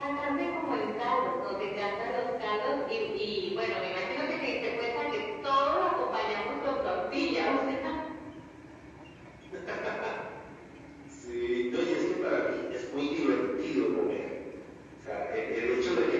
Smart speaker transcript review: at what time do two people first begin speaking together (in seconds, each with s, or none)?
none